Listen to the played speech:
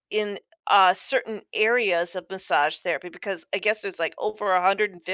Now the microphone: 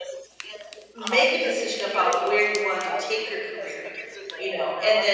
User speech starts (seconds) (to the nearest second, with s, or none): 1 s